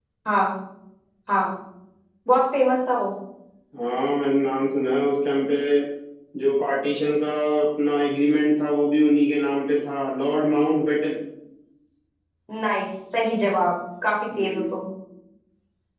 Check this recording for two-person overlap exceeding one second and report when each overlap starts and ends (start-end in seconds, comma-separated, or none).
none